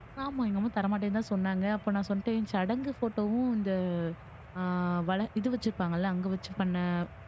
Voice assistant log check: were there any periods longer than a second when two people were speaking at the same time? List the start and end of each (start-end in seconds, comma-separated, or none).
none